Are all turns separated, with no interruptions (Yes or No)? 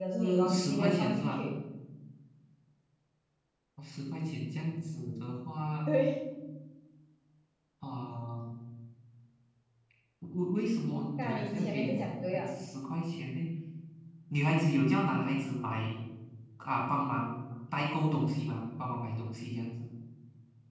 No